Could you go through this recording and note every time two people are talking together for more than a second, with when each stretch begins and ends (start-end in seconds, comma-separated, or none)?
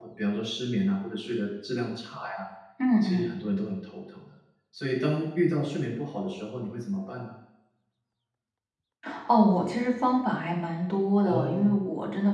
none